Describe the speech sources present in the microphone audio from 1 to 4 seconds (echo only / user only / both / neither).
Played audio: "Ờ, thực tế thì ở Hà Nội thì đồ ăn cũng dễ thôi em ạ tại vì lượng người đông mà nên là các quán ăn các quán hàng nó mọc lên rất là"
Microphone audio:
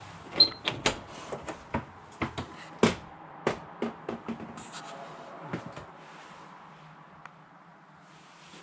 neither